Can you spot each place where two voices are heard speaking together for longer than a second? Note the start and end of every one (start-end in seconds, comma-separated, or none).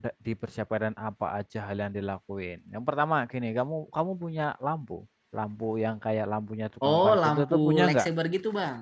6.9-8.1